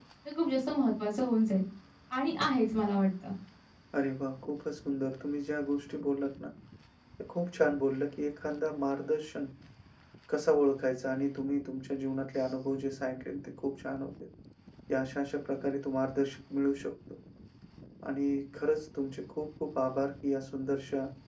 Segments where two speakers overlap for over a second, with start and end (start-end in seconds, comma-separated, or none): none